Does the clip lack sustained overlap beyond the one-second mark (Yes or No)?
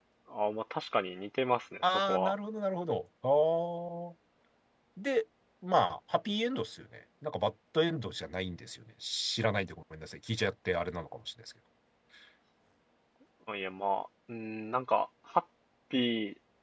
Yes